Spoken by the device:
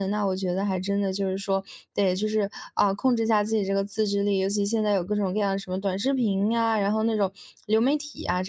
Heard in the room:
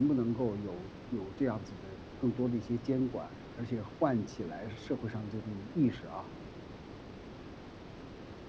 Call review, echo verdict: none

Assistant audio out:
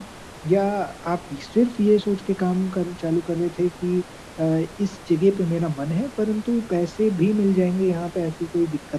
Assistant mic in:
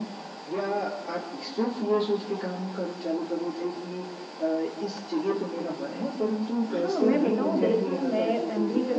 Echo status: present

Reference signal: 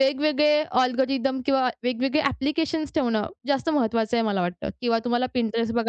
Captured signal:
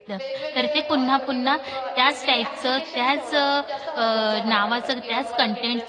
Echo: present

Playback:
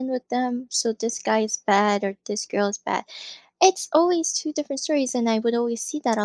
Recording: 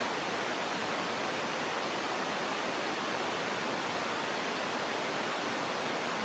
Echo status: none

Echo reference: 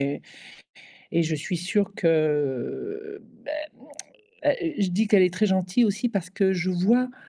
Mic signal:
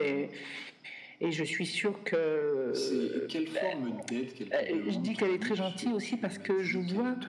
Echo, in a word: present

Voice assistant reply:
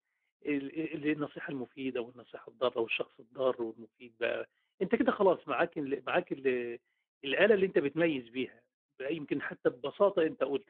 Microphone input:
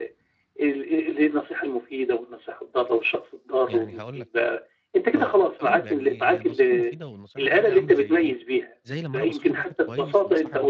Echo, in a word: present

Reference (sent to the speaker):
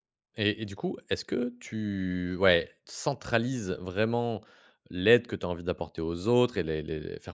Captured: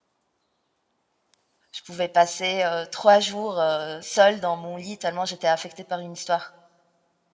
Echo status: none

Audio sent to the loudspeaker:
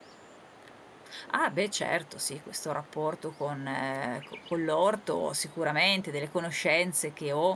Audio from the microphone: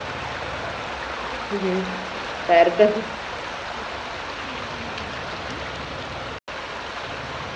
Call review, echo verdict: none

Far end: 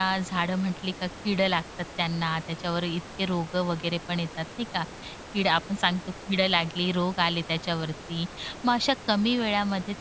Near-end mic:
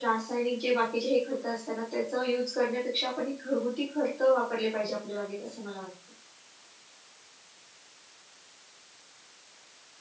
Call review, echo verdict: none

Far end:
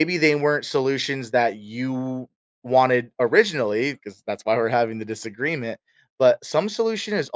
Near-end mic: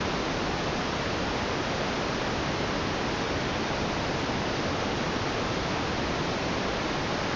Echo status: none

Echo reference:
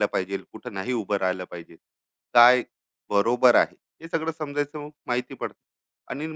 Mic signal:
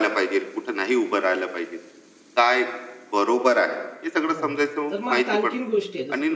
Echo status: present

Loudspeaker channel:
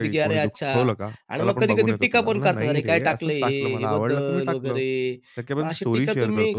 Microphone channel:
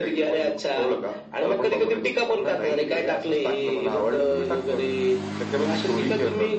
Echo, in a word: present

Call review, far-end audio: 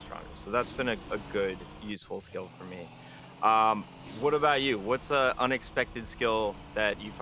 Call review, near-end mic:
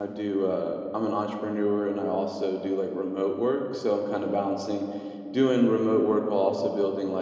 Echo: none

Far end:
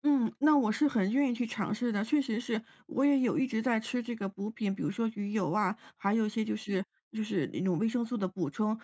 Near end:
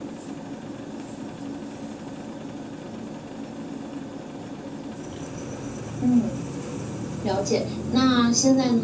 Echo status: none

